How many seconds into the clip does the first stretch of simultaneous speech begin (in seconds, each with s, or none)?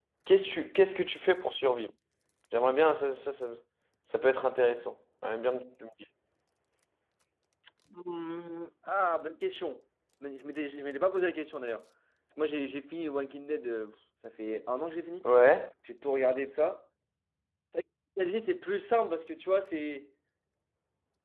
none